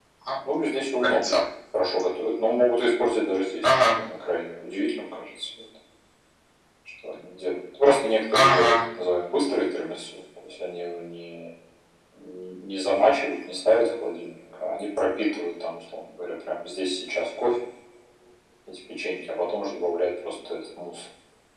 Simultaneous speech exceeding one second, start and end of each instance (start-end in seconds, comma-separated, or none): none